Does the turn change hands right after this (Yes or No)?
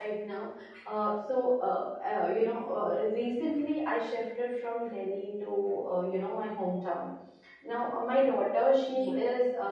No